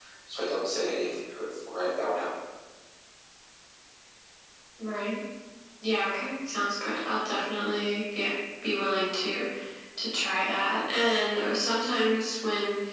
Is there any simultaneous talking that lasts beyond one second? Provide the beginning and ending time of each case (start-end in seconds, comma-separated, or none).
none